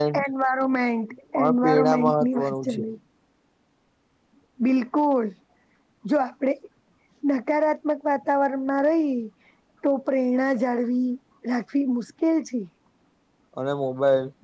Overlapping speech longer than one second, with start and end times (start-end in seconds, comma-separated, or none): 1.6-2.8